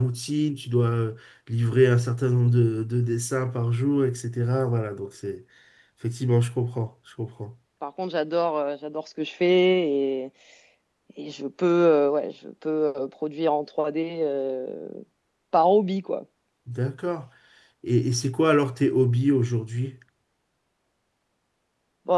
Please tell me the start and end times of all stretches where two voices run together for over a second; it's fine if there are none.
none

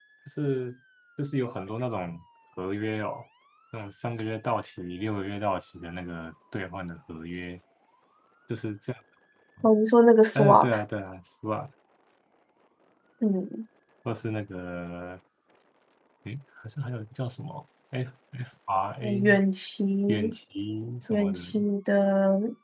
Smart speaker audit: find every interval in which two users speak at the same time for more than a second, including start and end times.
none

